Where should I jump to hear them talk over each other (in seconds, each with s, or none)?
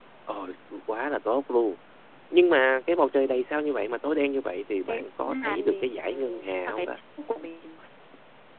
4.9 s